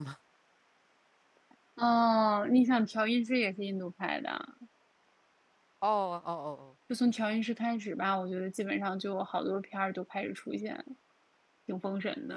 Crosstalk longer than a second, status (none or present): none